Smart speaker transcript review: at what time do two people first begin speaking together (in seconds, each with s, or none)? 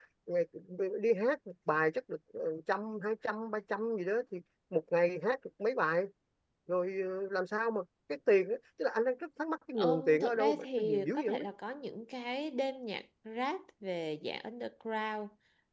9.8 s